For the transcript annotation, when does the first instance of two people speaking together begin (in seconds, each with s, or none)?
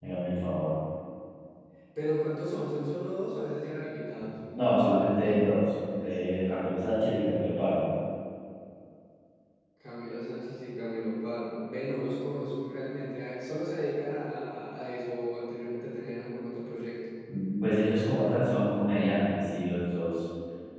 none